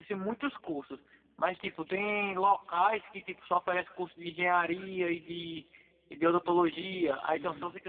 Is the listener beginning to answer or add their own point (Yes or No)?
No